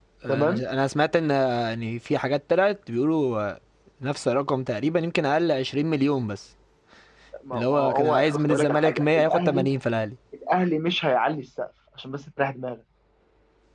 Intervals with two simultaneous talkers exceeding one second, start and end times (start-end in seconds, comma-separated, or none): 7.5-9.7